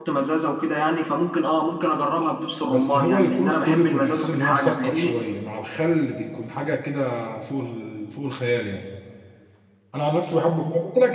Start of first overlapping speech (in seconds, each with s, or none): 2.7 s